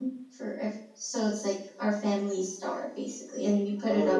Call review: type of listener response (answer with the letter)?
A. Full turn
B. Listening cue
A